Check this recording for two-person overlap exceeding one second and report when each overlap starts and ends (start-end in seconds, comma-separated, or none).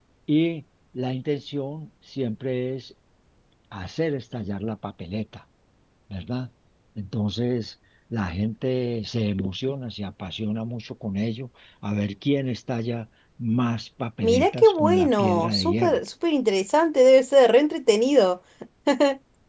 14.2-16.0